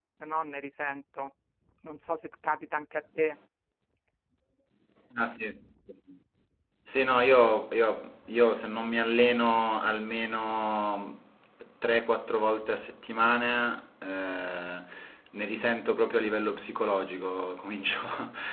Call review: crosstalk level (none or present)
none